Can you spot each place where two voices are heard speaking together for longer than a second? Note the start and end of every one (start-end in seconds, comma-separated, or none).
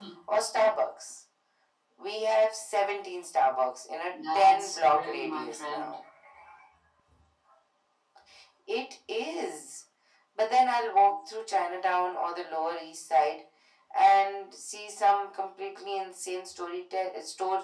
4.1-5.9